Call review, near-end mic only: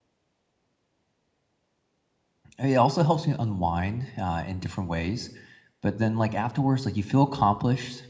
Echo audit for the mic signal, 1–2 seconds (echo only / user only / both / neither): neither